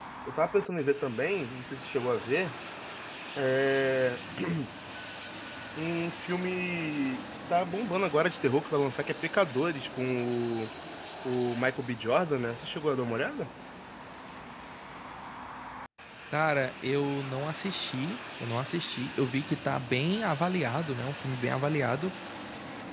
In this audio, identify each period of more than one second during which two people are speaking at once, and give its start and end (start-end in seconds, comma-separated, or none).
none